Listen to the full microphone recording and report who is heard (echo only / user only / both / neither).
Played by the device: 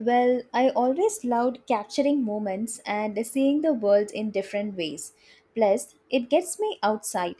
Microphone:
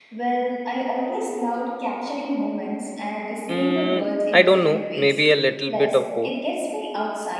both